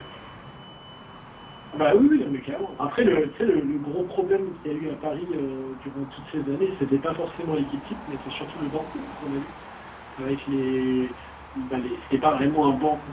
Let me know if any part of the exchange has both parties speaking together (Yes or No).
No